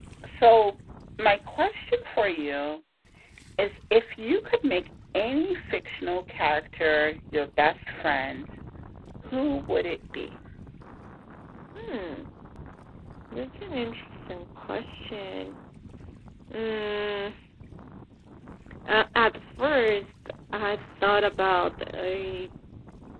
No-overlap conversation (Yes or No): Yes